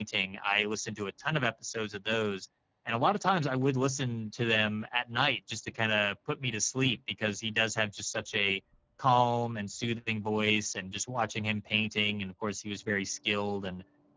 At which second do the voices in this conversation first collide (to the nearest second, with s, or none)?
none